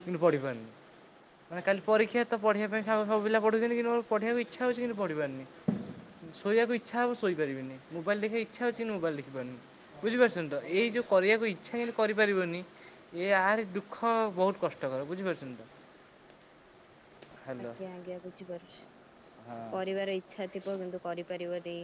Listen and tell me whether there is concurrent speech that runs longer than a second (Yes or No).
No